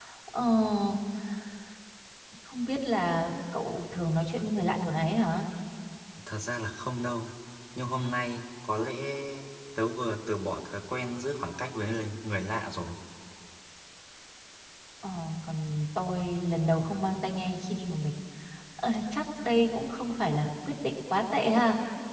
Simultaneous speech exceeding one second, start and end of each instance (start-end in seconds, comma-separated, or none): none